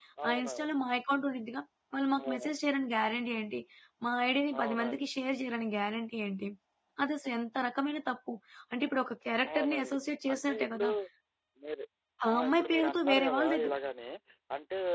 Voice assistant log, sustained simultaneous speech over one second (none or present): present